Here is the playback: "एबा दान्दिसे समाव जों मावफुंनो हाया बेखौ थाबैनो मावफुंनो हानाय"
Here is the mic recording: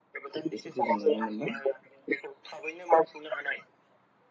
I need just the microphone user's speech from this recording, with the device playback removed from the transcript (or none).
बेफोरखौ जों नुनो मोनदों।